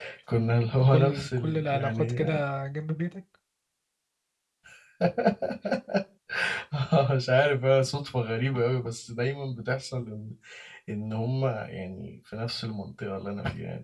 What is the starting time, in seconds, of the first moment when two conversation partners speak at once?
0.9 s

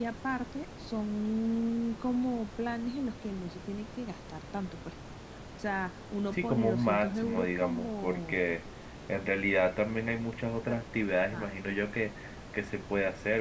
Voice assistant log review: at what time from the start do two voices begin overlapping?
6.3 s

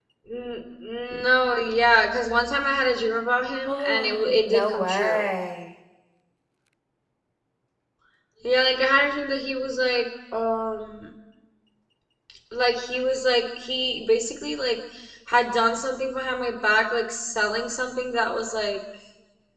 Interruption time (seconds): 3.7 s

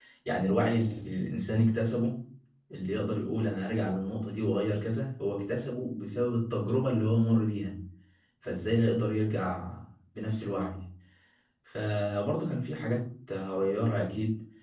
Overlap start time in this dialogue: none

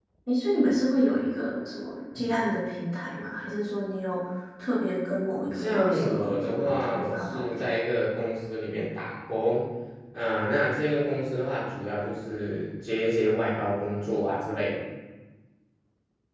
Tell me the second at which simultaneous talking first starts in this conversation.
5.5 s

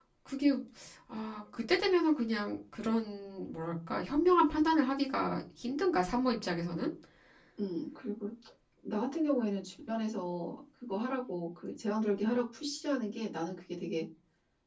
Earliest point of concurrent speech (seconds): none

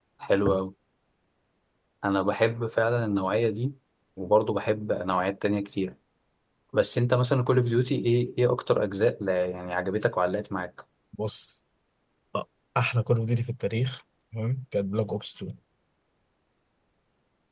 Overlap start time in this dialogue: none

